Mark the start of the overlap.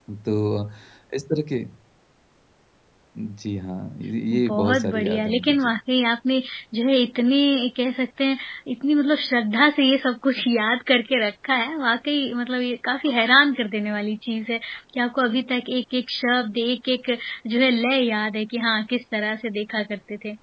4.3 s

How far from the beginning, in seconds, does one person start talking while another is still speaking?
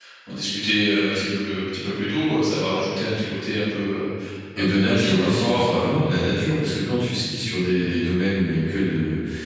4.6 s

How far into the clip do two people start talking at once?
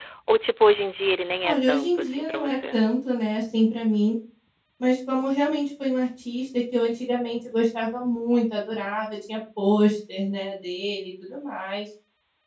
1.4 s

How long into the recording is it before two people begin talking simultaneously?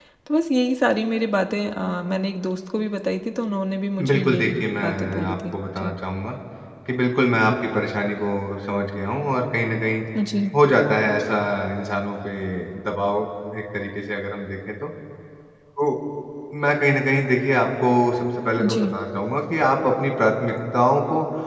4.1 s

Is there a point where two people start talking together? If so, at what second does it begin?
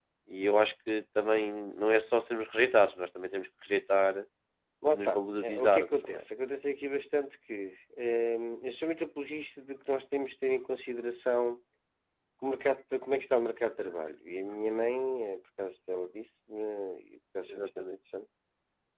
4.8 s

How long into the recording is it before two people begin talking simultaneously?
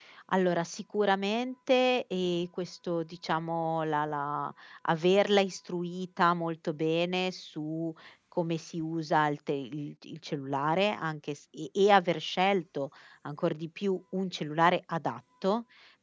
none

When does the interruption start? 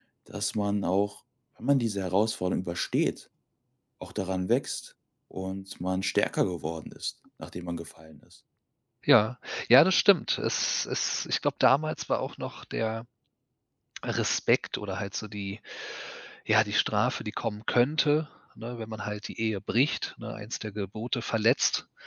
none

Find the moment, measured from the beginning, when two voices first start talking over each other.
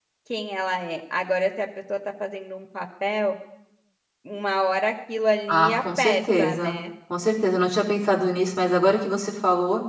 5.5 s

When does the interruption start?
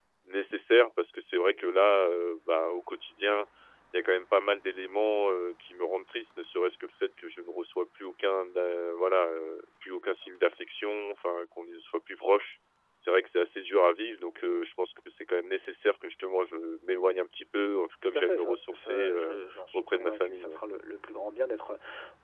18.1 s

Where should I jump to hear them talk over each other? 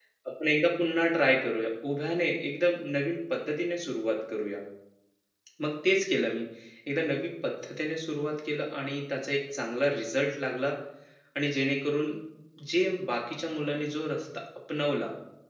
none

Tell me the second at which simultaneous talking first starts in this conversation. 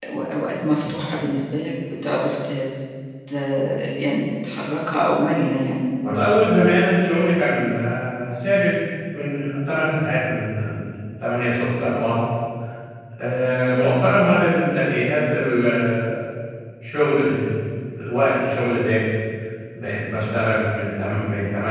none

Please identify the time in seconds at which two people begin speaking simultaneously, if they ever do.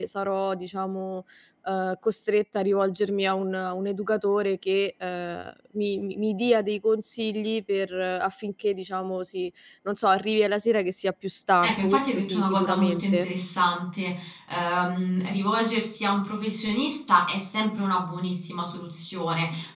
11.6 s

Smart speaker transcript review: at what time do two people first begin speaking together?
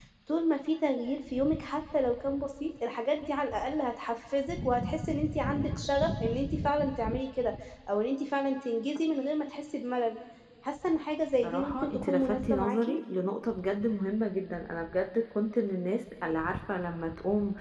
11.4 s

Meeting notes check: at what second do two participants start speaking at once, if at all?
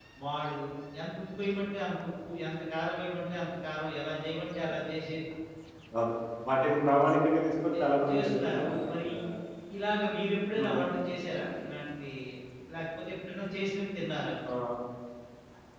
7.7 s

